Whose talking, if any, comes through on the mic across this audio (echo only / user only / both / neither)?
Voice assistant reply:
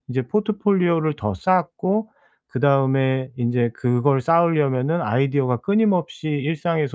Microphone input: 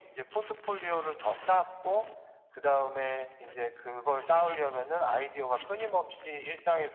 echo only